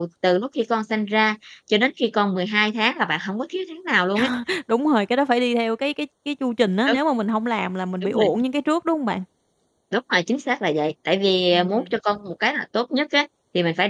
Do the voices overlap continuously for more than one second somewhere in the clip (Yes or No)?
No